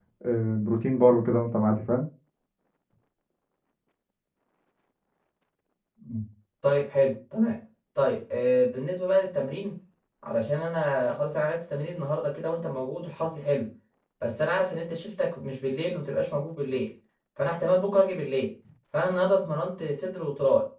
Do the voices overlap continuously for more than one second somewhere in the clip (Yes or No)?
No